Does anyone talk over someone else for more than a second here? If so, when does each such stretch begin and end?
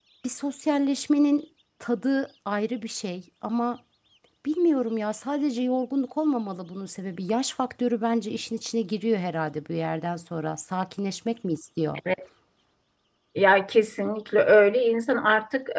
none

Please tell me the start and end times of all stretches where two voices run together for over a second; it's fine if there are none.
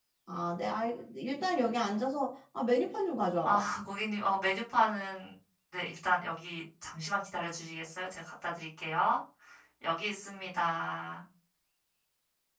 none

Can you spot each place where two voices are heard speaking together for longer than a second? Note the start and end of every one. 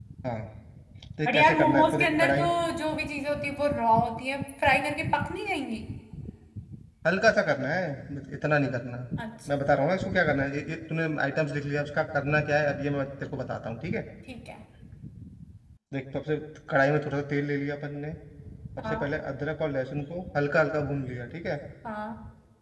1.3-2.6

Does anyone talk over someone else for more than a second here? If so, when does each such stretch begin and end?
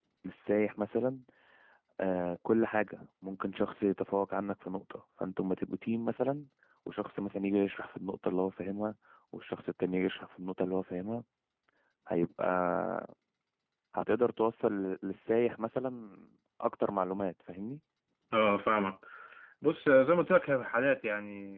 none

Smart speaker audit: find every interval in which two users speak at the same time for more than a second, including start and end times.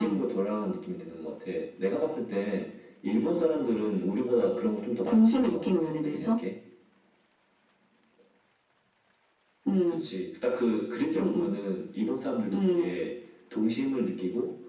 5.1-6.4

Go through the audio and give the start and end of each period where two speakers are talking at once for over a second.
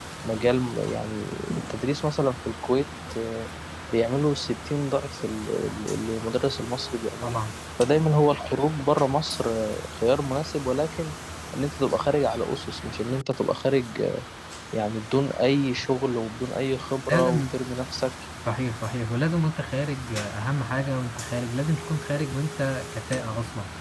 none

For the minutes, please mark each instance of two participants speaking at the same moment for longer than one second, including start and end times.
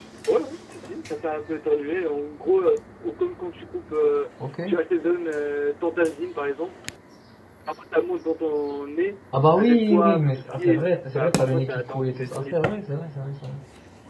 9.6-12.5

